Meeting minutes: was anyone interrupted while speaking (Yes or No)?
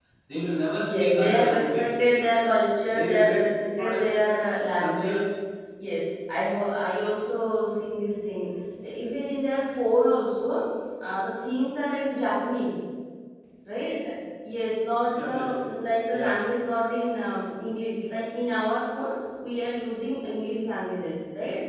Yes